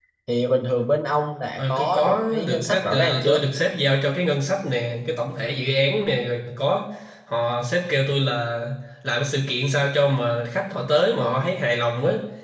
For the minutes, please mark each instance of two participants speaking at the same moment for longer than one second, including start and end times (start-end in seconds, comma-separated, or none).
1.6-3.5